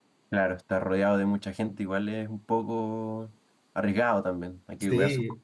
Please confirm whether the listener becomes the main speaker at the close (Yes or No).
Yes